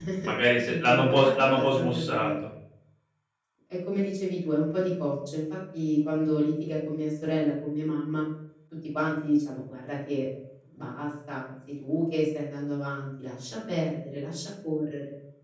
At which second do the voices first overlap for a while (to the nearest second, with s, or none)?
1 s